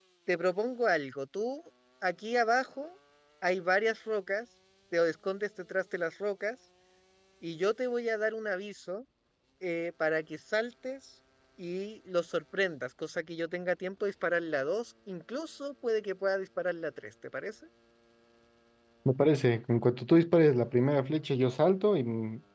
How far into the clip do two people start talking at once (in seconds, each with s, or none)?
none